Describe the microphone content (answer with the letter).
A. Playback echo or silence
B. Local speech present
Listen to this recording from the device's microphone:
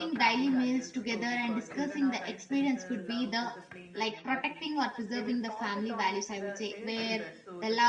B